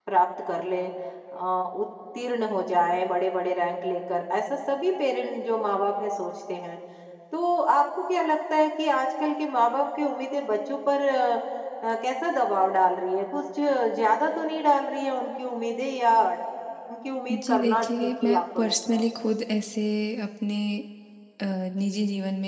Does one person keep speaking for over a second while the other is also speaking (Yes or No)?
Yes